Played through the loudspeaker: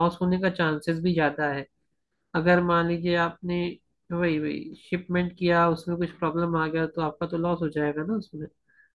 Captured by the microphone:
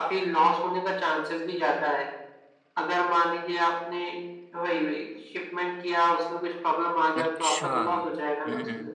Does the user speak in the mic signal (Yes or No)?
Yes